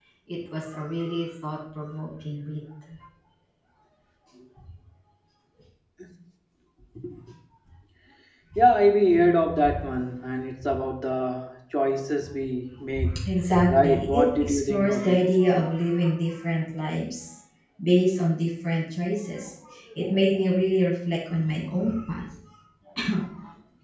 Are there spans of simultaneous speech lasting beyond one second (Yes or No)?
Yes